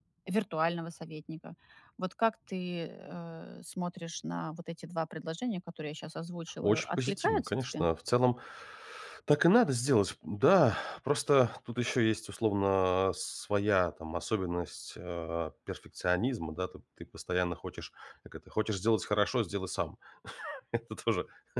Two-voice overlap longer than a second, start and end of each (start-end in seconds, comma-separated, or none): 6.6-7.9